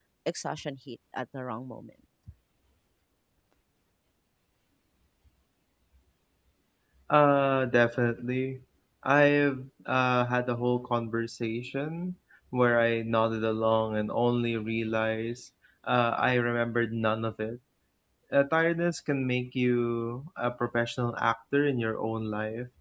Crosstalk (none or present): none